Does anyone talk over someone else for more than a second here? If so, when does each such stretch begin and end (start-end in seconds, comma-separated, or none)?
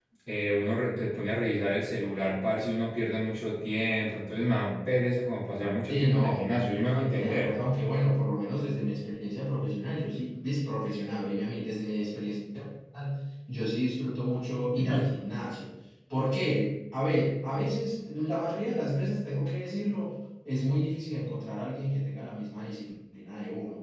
5.9-7.5